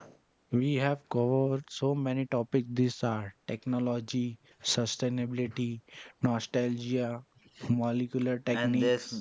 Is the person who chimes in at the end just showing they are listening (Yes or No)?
No